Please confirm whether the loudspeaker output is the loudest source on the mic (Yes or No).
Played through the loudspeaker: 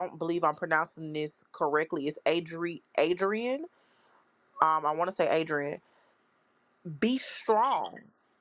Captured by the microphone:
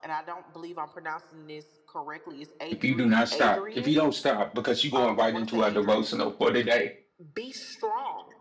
No